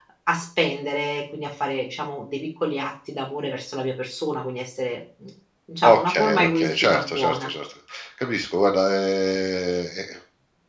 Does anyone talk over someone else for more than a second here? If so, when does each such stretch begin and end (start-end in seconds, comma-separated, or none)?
5.8-7.5